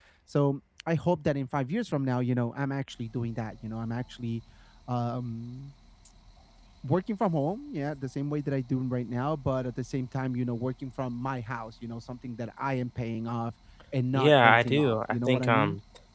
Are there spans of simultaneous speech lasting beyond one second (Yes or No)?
Yes